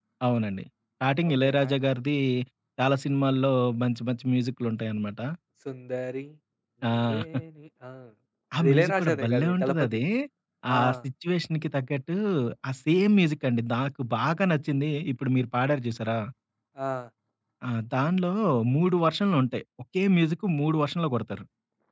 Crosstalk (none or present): present